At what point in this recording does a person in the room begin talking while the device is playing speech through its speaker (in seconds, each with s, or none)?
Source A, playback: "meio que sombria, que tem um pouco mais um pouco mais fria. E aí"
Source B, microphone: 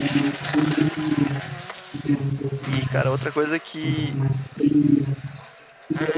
2.6 s